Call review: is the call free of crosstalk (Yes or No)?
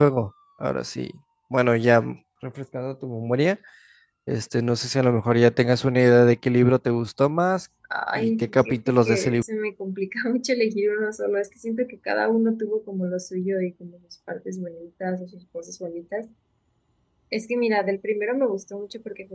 No